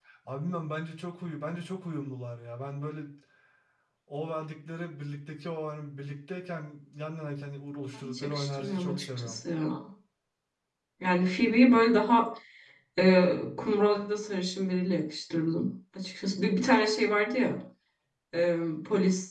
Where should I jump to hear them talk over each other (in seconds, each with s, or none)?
7.9 s